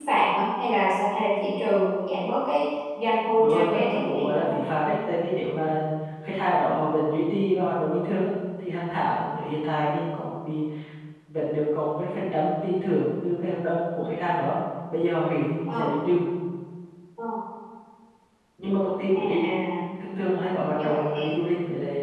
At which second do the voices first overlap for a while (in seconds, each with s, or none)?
3.4 s